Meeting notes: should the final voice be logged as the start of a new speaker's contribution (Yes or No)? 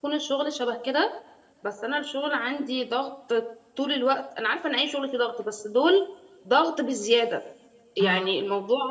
No